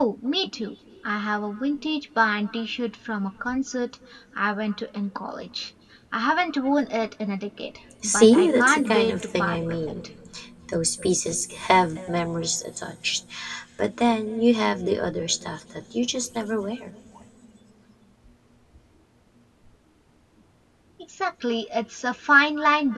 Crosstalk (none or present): present